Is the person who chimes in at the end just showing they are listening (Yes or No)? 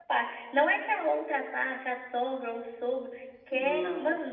Yes